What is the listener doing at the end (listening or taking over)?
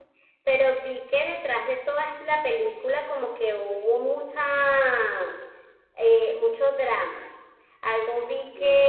listening